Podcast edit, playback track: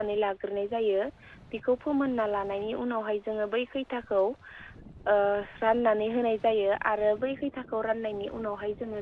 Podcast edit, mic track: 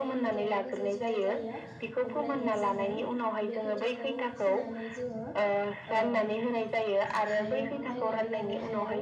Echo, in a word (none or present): present